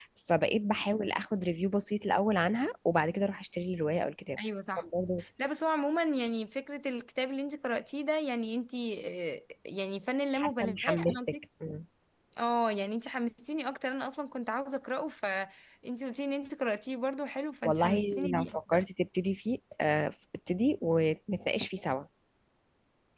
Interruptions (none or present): present